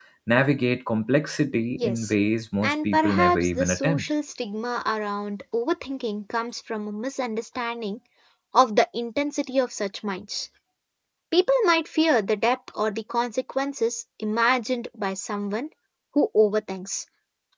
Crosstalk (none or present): present